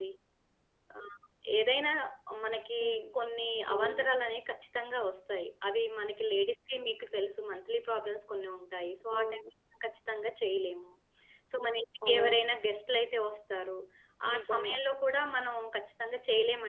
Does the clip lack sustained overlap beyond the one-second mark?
Yes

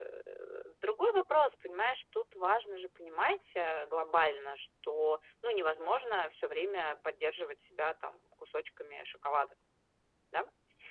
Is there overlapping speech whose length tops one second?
No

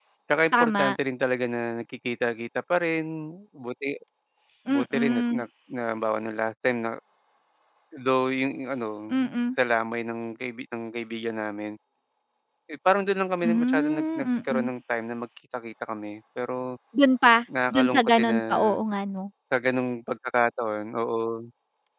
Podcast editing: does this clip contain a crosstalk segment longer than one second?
Yes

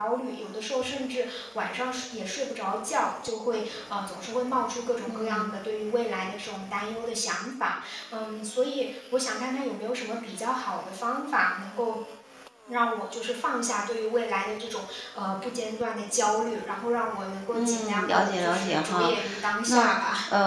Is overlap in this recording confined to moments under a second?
No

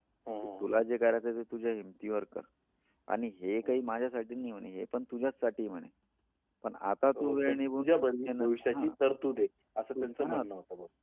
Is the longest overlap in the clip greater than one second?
Yes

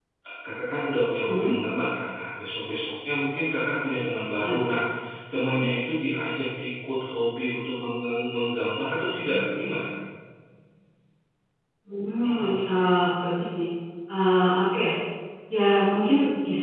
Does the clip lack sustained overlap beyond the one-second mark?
Yes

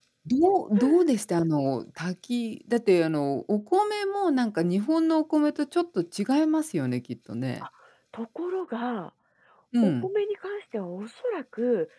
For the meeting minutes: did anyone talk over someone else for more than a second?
No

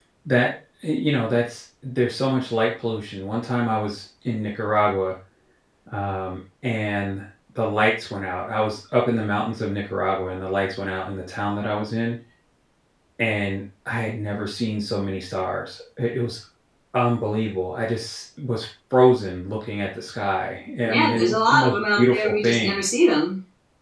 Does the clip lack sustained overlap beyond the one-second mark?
No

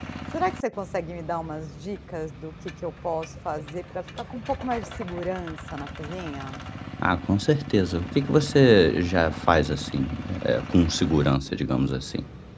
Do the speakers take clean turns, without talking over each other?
Yes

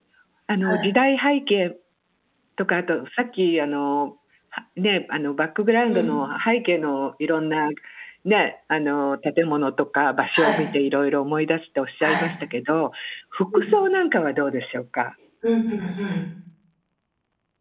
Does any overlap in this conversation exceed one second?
No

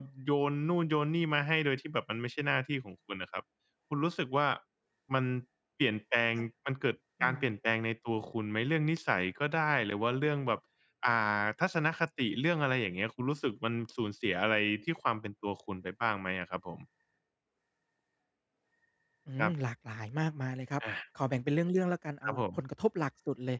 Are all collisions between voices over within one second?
Yes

